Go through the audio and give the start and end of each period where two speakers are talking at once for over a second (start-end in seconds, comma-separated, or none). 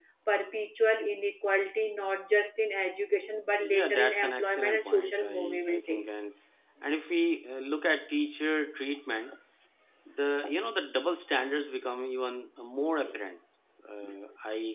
3.6-6.1